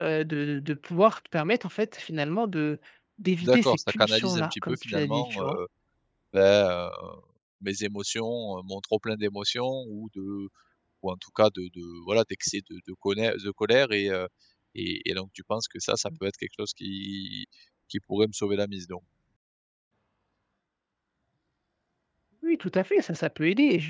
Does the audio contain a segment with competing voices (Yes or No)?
Yes